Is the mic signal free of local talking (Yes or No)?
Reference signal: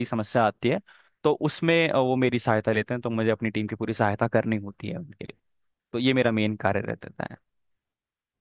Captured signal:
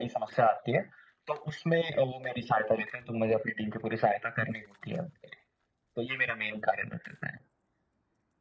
Yes